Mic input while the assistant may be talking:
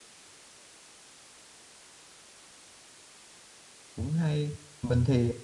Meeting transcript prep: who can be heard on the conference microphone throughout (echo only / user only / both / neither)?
user only